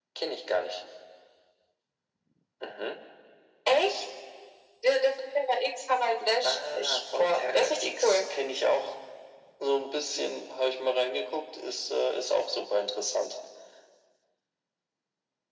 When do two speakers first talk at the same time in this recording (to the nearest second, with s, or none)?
6 s